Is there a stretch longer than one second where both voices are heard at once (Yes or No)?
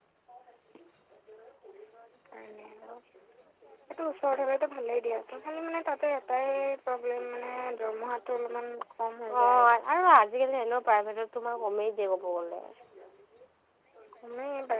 No